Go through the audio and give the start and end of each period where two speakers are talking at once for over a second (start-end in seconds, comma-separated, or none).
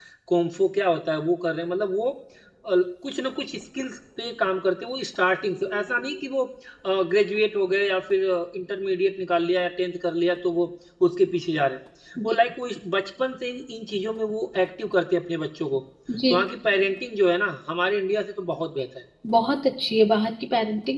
none